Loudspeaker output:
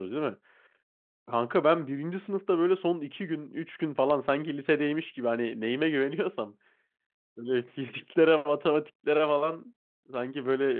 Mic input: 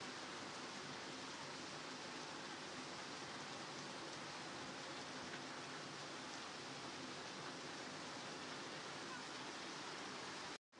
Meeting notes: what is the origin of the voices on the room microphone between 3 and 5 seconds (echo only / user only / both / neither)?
neither